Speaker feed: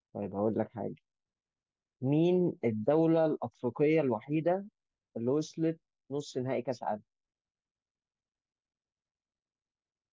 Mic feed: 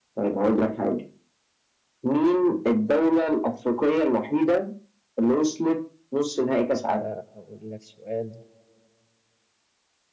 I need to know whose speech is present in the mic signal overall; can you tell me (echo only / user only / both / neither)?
both